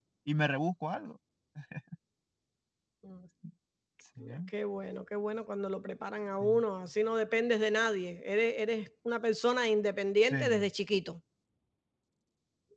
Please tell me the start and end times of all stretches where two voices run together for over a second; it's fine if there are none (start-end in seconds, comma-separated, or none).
none